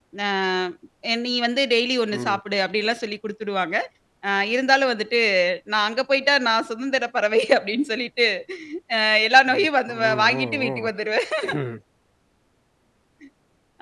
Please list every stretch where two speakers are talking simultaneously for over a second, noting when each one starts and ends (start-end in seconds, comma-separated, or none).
9.5-10.9